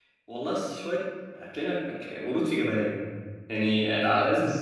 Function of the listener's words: listening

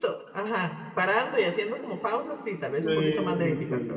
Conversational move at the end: taking over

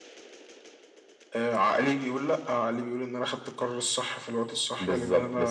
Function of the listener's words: taking over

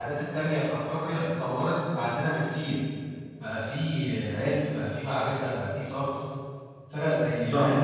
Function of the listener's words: listening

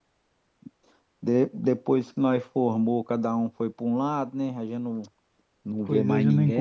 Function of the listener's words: taking over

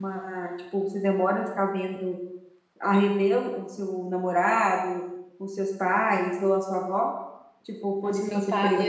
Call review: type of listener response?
taking over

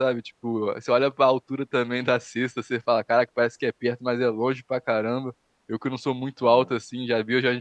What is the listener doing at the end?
listening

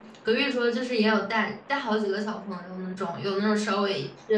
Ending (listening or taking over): listening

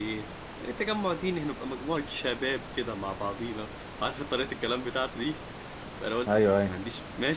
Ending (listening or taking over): listening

